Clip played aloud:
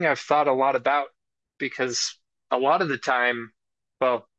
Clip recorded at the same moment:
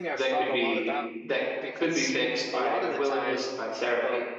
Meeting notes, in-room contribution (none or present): present